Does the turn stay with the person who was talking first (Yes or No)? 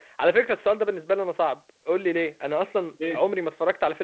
Yes